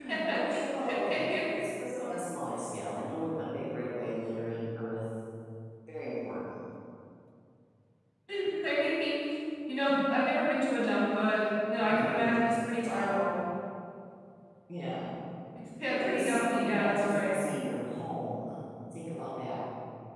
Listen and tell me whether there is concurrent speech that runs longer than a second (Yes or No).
Yes